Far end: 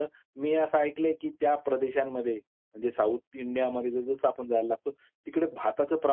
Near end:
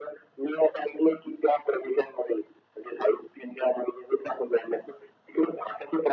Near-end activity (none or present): none